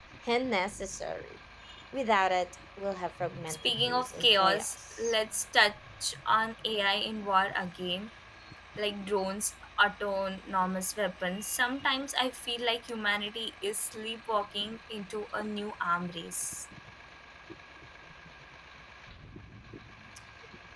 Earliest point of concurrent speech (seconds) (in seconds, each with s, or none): 3.2 s